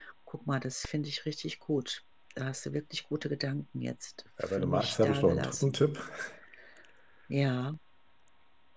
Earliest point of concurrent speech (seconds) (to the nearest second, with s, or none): 4 s